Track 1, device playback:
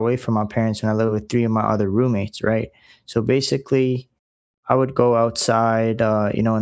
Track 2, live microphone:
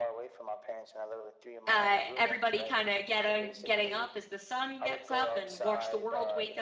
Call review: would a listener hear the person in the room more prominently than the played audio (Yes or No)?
Yes